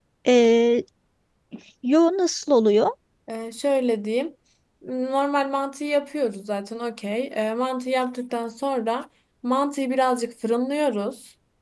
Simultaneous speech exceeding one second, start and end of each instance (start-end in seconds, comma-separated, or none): none